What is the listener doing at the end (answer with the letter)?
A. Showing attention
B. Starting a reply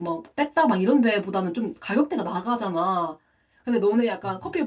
A